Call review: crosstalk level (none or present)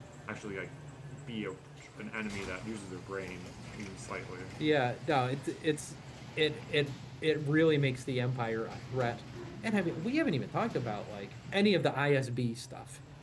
none